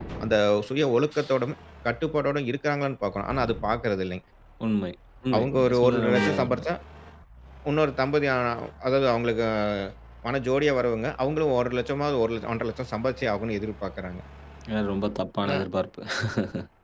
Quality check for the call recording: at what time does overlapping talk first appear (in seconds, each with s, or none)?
5.3 s